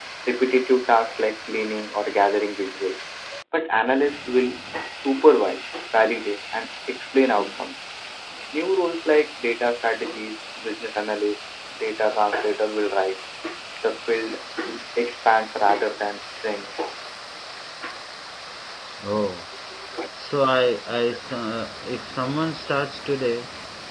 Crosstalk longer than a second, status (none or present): none